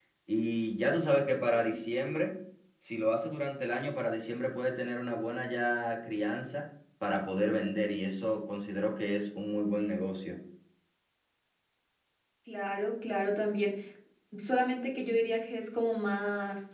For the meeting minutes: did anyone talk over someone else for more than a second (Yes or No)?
No